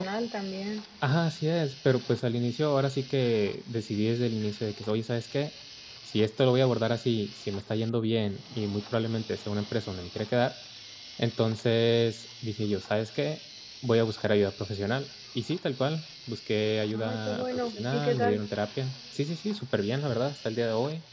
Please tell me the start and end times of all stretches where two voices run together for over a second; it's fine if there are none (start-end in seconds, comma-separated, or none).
16.9-18.4